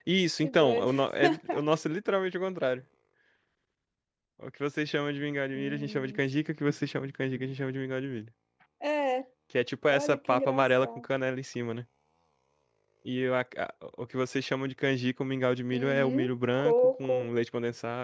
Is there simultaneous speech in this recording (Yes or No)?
Yes